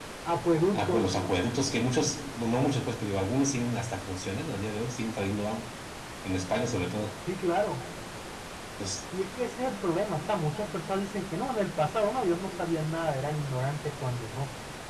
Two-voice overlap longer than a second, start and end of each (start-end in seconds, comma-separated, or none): none